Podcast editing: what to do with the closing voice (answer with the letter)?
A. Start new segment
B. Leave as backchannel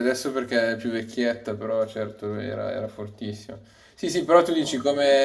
B